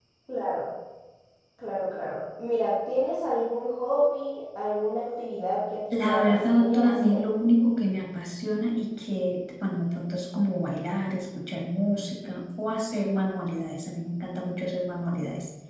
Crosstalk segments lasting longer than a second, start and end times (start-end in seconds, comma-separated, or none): 5.9-7.2